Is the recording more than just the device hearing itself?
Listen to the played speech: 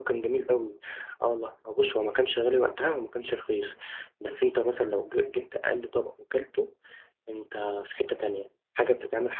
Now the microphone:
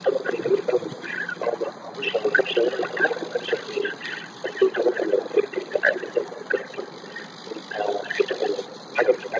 No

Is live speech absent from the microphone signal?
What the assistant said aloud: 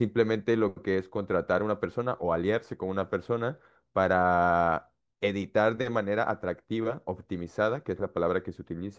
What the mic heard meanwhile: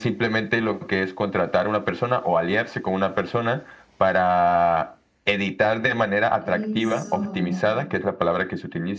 No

